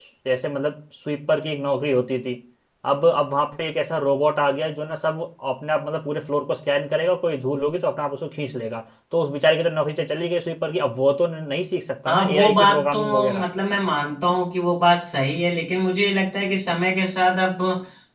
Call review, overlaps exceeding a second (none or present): present